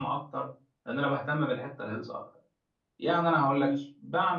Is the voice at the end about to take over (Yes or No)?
No